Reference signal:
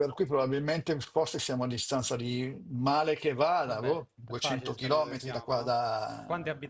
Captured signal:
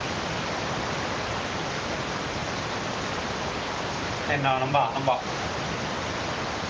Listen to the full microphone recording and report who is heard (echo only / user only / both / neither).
user only